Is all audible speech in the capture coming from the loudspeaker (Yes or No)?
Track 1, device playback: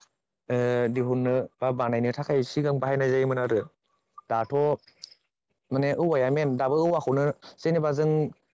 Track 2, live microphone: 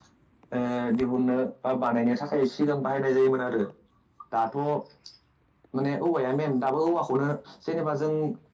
Yes